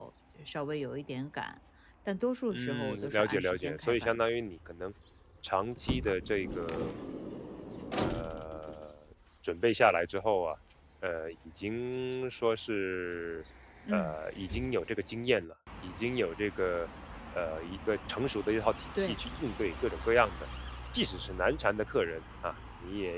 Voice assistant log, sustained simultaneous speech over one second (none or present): present